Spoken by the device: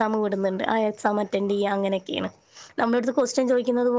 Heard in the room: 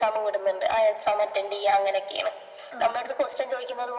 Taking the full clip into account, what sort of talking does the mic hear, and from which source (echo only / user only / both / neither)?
both